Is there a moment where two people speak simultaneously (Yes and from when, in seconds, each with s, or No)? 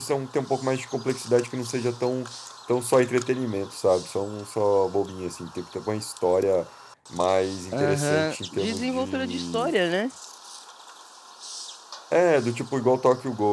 Yes, from 7.7 s